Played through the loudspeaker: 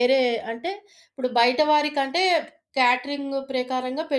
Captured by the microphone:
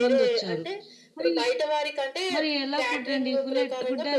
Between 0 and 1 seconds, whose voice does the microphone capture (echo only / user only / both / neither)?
both